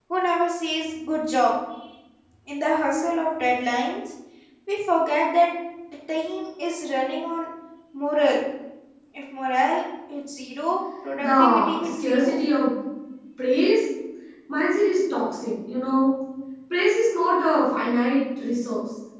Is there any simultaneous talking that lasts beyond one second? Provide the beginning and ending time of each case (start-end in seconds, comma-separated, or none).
11.2-12.4